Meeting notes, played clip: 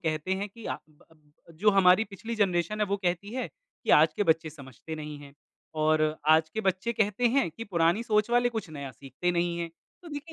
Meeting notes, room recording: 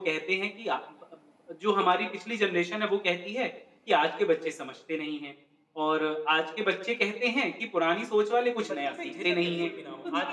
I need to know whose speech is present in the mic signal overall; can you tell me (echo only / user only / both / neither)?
both